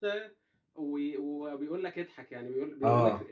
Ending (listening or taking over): listening